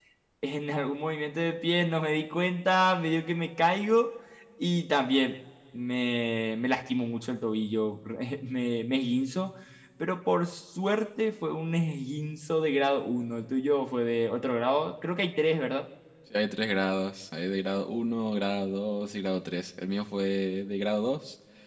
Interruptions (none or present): none